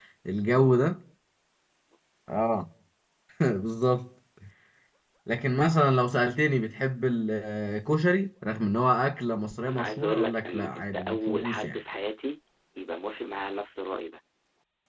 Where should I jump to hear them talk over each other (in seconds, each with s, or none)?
9.7 s